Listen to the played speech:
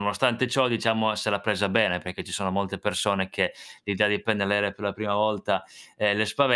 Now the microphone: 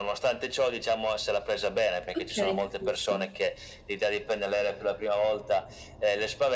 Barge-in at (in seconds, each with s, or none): 2.1 s